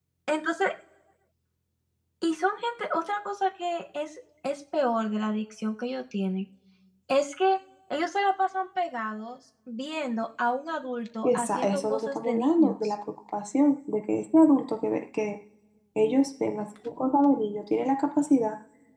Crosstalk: present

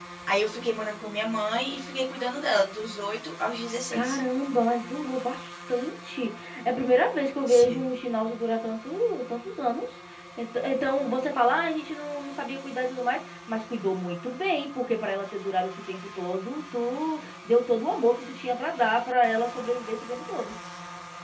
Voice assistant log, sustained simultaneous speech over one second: none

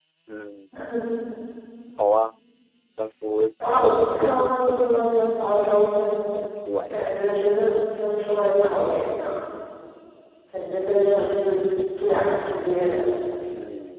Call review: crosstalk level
present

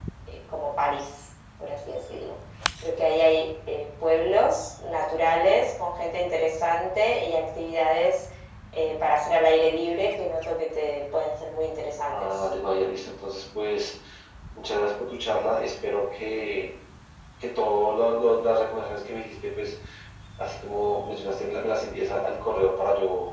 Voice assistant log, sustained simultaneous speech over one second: none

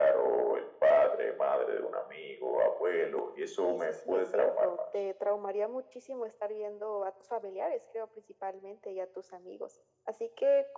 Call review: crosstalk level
present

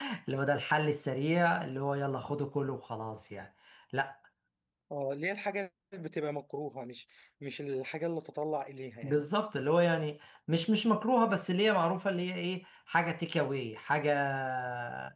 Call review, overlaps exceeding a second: none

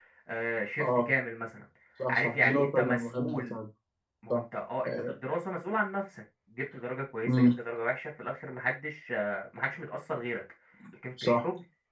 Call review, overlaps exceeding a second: present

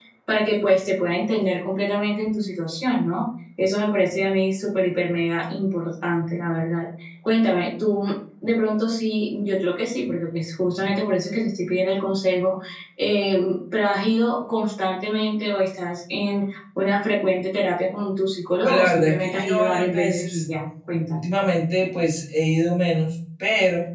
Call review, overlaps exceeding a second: present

